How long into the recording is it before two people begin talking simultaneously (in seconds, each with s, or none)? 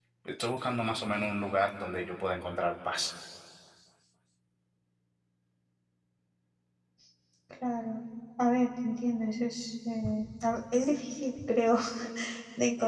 none